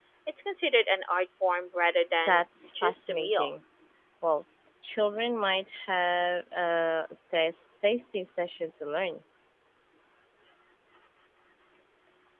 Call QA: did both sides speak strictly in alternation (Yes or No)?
No